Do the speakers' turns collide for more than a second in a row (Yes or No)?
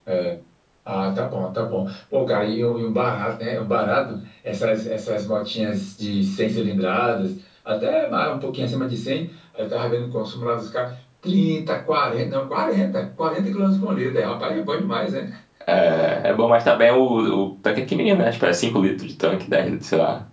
No